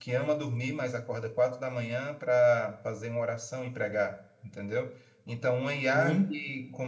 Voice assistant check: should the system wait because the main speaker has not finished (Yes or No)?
Yes